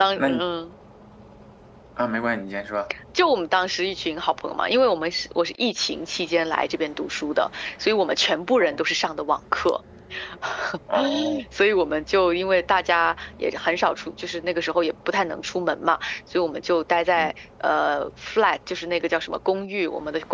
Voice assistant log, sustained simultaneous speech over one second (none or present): none